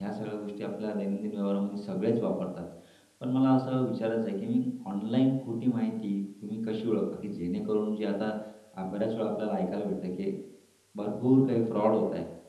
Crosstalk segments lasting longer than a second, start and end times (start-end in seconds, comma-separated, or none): none